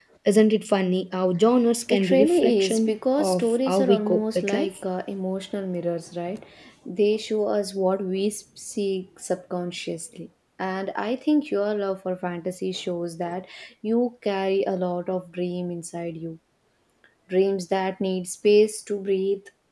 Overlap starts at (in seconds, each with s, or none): 1.9 s